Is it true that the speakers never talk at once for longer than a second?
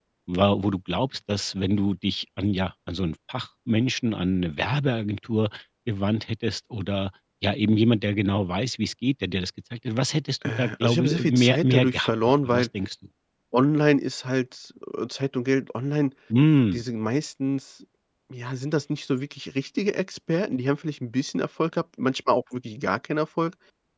No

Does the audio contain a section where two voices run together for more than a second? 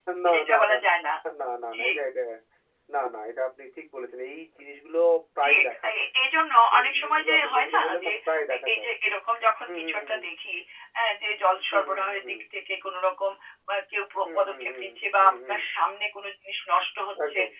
Yes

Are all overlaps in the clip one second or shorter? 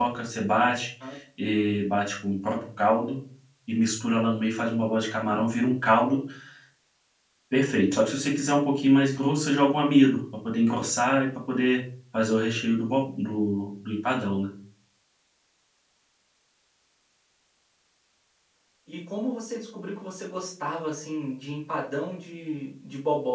Yes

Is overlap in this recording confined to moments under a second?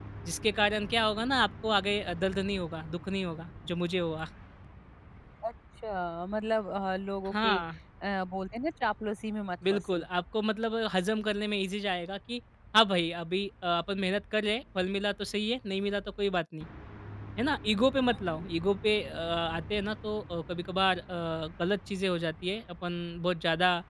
Yes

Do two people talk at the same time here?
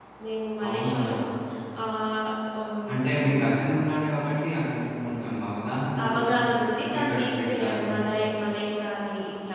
Yes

